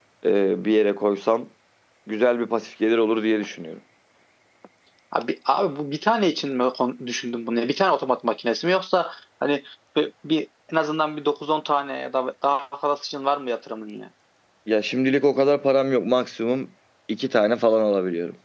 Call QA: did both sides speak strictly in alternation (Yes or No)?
Yes